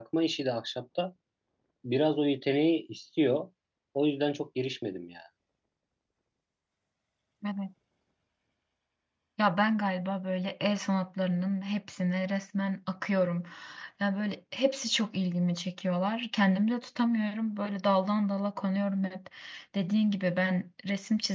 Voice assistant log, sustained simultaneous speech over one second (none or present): none